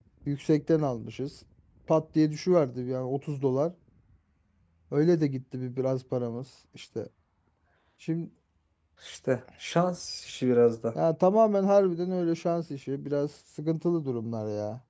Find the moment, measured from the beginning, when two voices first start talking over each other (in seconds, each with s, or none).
none